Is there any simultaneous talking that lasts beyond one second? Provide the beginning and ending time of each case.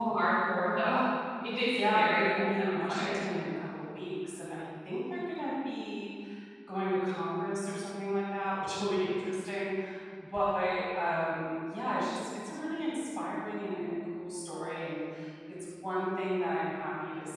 1.7-3.2

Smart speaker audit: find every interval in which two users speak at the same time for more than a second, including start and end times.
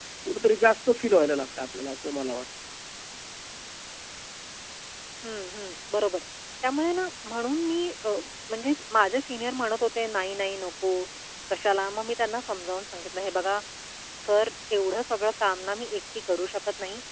none

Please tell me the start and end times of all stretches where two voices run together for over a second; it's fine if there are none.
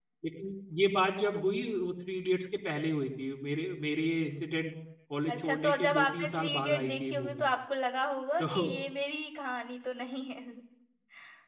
5.3-7.4

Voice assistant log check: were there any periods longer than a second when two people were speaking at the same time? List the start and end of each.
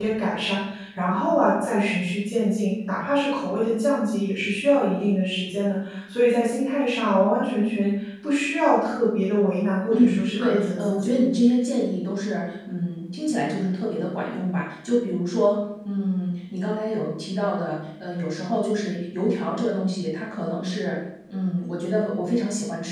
9.9-11.1

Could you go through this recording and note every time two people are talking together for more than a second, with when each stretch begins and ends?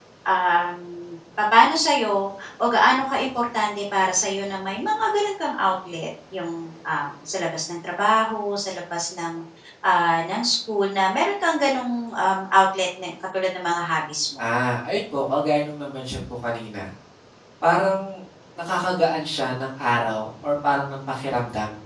none

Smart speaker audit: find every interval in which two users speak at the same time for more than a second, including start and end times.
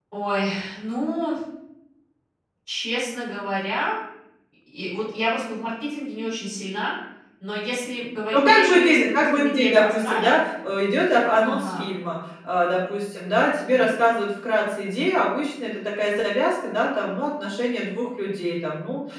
8.3-10.4

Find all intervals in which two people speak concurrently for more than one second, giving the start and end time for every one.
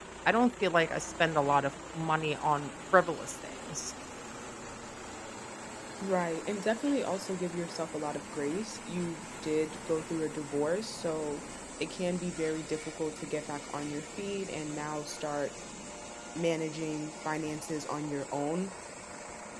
none

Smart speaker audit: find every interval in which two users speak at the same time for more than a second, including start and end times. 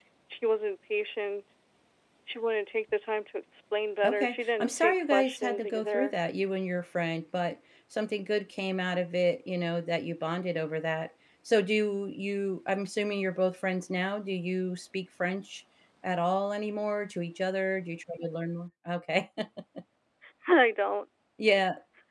4.0-6.1

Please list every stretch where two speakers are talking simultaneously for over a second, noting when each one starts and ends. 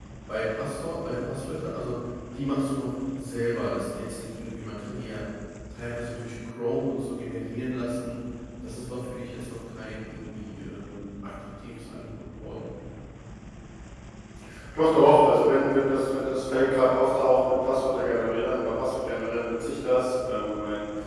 none

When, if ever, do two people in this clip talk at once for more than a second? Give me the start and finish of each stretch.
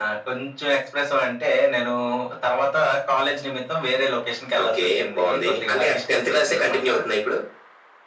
4.6-6.9

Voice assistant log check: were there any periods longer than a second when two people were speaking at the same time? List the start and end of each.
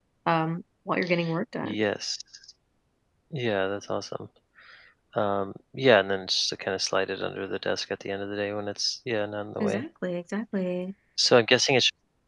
none

